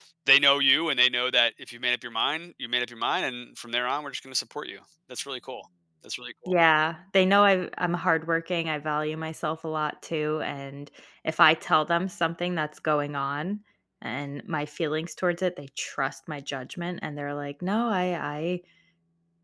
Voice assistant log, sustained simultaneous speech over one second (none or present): none